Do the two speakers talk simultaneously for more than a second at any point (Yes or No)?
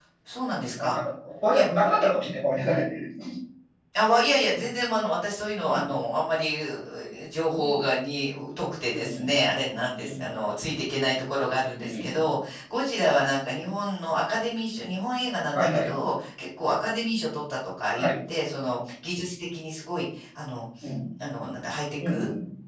No